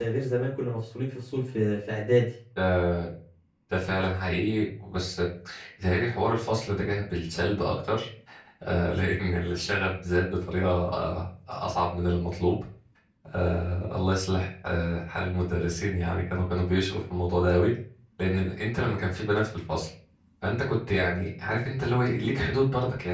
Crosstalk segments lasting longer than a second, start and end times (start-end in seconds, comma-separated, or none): none